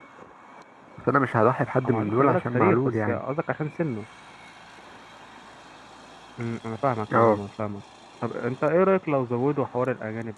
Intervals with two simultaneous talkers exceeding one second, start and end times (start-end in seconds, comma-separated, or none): 1.9-3.2